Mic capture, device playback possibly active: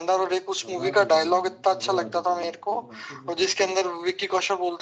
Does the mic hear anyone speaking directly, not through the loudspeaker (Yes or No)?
Yes